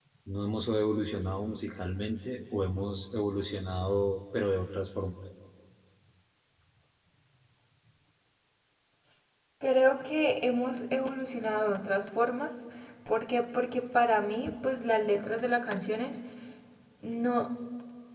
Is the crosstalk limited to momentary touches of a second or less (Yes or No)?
Yes